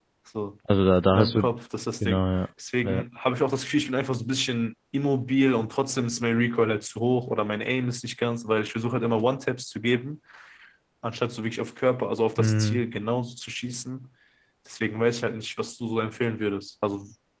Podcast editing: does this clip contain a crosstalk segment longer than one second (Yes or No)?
No